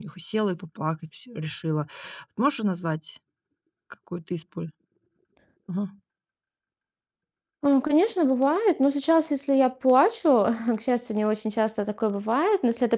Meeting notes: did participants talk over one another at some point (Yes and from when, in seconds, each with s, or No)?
No